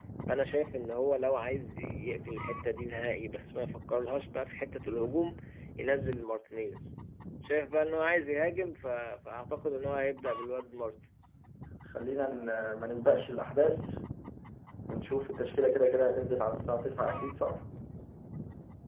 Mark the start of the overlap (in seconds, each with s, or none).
none